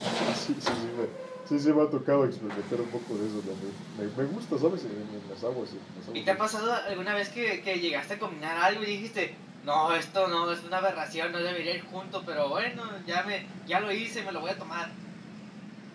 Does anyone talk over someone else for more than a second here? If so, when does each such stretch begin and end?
none

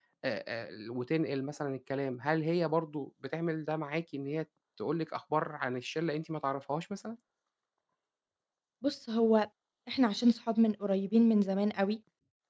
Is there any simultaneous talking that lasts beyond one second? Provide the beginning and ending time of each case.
none

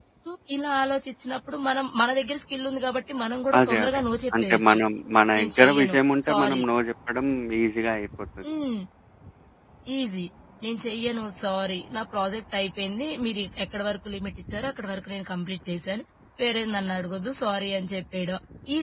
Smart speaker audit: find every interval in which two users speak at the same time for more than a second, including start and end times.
5.4-6.6

